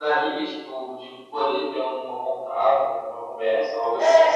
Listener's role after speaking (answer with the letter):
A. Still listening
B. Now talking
B